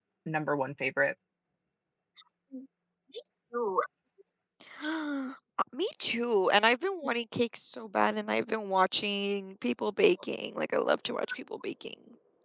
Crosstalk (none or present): none